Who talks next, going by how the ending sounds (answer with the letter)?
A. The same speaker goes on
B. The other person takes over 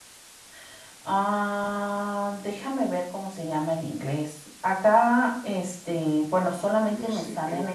B